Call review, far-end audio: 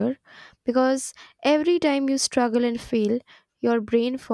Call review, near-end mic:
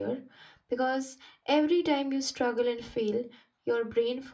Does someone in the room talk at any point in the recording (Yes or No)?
No